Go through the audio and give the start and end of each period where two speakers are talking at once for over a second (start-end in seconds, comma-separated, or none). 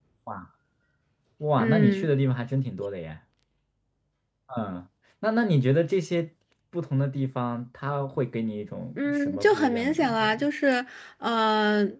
9.0-10.5